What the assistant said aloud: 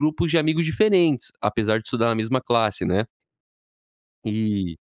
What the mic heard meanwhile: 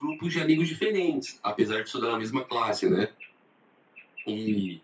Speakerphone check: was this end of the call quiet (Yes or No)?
Yes